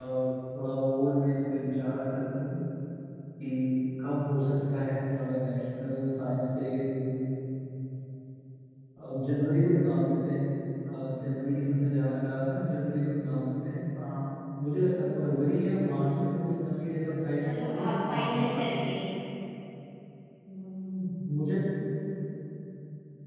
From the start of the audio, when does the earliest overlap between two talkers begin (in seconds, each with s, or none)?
17.4 s